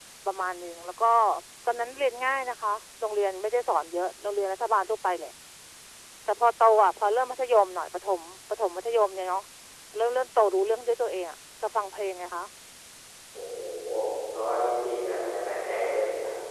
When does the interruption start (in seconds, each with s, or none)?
none